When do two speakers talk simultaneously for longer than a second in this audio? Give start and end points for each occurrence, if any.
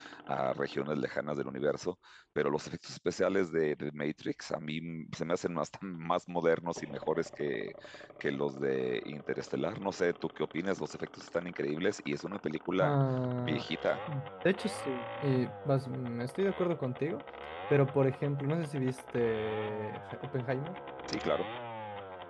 none

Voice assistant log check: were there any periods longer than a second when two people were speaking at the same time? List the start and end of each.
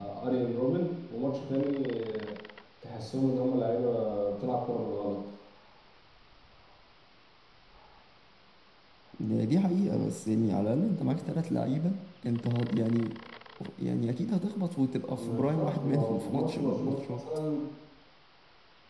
15.2-17.2

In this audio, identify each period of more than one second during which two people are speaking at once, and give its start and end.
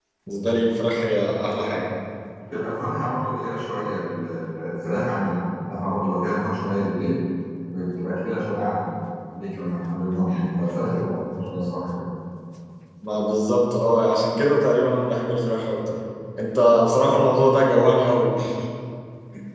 none

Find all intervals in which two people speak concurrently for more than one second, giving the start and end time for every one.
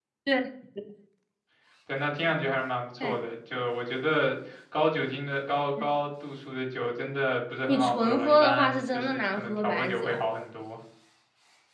7.7-10.2

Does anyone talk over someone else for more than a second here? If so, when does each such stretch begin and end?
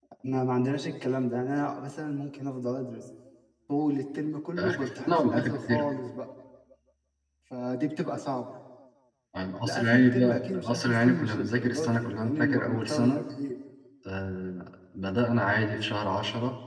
4.6-5.9, 9.6-13.2

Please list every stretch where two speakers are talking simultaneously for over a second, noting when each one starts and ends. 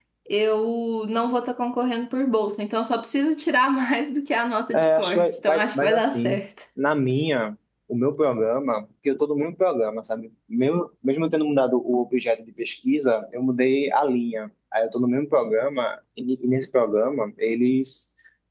4.7-6.4

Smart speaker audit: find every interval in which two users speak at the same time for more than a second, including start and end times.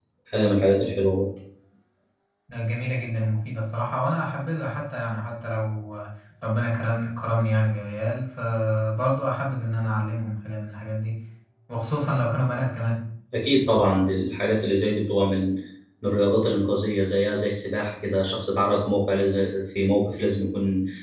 none

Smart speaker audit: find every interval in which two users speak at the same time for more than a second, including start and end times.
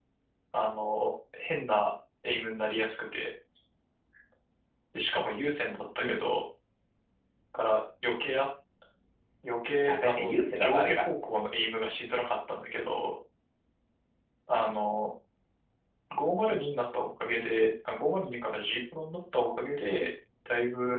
9.8-11.0

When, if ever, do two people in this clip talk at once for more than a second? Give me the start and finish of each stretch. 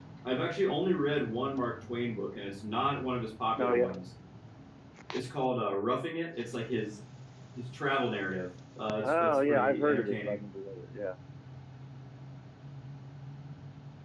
9.0-10.4

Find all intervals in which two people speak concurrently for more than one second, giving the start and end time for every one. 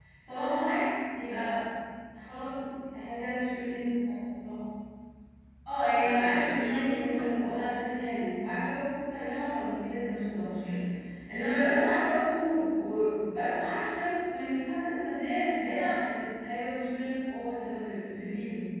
5.8-7.3

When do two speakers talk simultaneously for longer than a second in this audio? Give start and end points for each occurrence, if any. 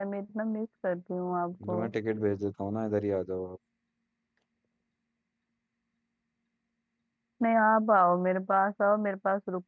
none

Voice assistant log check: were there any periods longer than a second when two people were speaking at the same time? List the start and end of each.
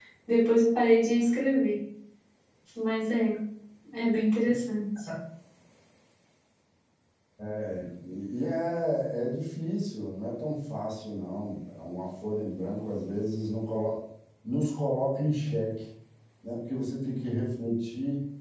none

